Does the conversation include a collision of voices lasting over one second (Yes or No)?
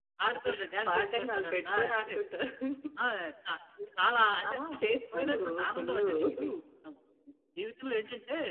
Yes